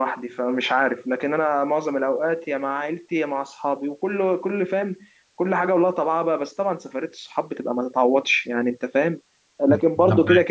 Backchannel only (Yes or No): Yes